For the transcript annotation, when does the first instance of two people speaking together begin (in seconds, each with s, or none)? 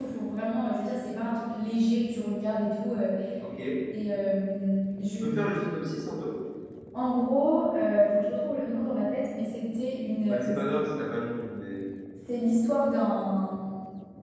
none